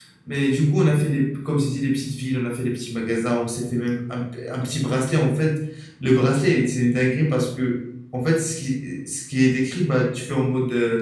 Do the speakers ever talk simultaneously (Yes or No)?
No